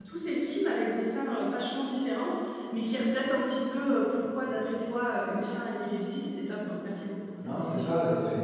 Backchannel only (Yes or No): No